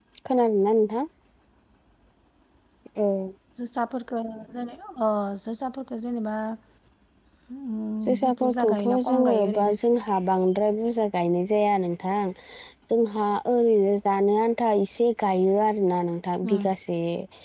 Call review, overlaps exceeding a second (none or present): present